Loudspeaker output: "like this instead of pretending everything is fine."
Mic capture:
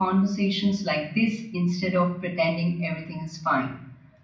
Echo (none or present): present